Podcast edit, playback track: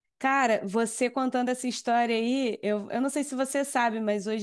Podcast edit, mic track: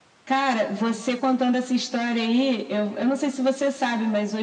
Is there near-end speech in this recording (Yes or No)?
No